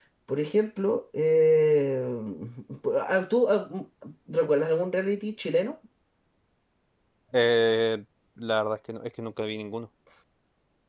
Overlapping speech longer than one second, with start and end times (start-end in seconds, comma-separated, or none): none